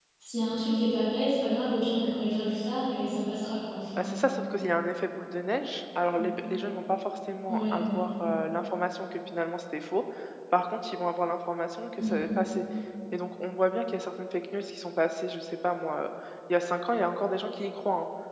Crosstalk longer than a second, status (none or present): none